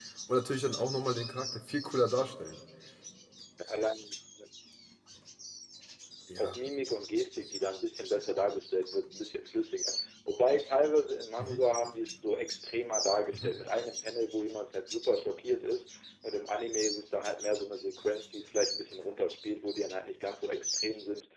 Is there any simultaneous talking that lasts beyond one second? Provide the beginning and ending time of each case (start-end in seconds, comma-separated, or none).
none